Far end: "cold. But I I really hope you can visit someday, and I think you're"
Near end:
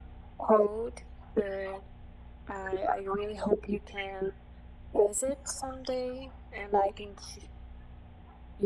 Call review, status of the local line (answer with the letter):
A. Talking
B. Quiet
B